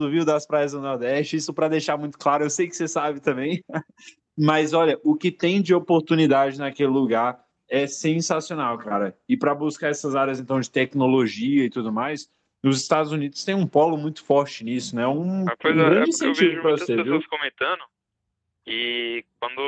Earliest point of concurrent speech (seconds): 15.5 s

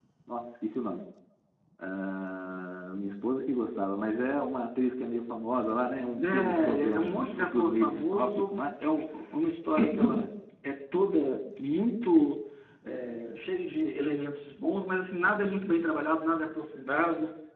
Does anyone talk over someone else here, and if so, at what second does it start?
6.2 s

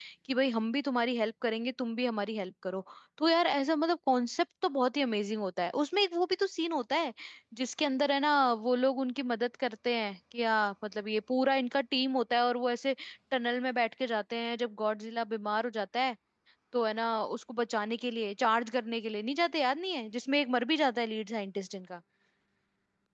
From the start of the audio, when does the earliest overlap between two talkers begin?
none

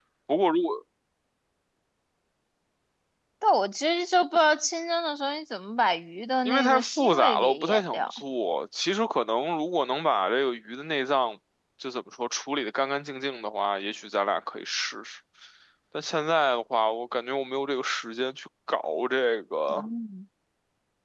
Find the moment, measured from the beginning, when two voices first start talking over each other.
6.5 s

